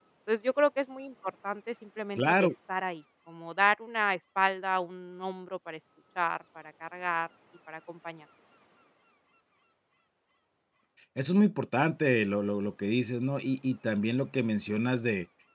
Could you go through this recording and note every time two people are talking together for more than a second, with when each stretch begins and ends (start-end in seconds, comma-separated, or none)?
none